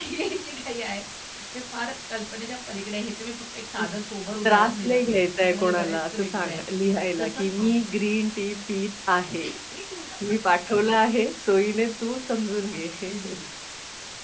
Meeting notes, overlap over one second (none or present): present